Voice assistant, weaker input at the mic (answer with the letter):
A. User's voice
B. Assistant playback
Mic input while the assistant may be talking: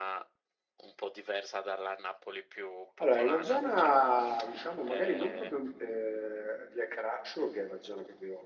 B